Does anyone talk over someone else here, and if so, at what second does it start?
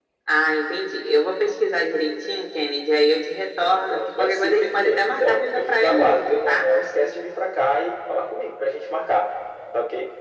3.9 s

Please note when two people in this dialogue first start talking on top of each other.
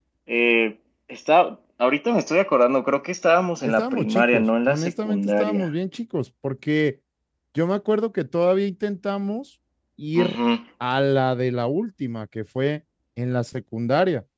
3.6 s

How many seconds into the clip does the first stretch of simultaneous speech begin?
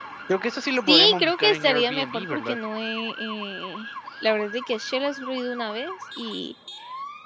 0.9 s

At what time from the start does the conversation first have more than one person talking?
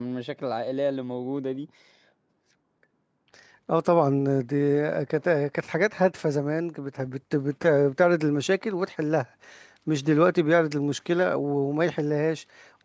none

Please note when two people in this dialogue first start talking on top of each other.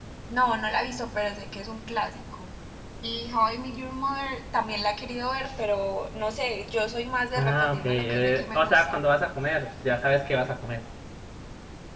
7.3 s

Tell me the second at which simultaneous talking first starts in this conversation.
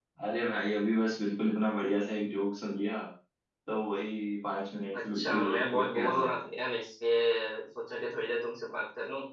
4.9 s

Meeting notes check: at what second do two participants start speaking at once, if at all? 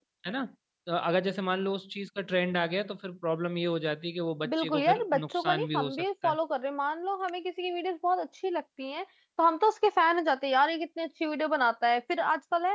4.4 s

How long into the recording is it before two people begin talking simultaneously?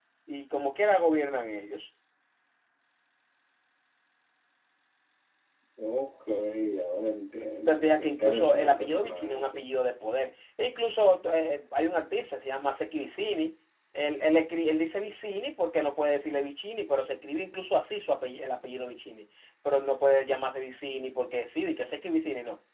7.7 s

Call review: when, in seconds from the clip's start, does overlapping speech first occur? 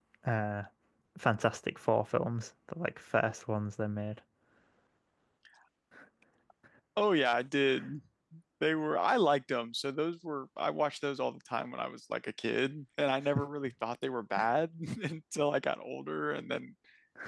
none

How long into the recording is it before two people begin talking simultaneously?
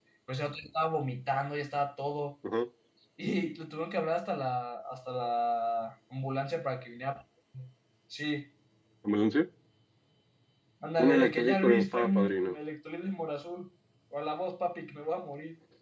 11.1 s

